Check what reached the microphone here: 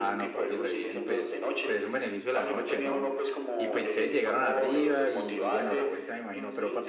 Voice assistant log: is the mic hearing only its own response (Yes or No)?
No